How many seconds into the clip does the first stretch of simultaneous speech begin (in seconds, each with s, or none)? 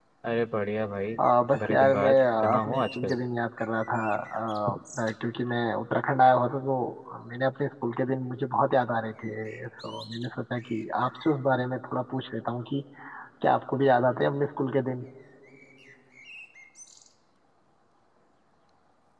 1.6 s